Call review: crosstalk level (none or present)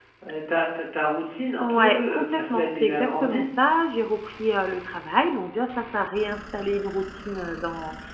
present